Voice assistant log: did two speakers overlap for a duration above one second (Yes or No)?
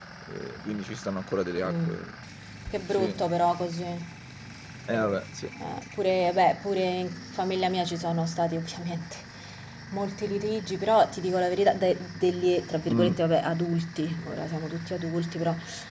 No